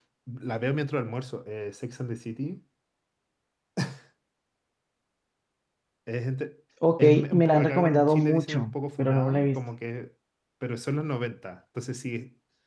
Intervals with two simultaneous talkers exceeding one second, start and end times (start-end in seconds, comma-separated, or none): 7.0-9.6